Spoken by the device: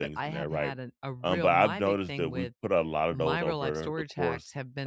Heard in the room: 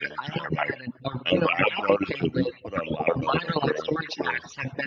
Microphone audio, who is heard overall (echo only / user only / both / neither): echo only